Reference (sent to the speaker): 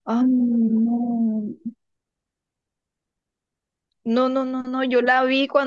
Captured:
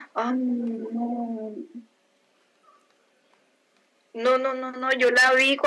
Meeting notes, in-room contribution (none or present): none